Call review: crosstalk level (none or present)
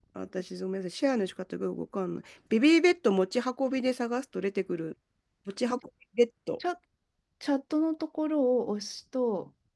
none